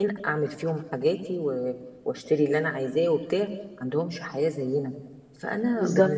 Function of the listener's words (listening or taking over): listening